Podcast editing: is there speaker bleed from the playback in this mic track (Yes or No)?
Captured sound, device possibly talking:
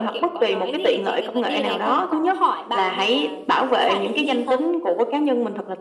Yes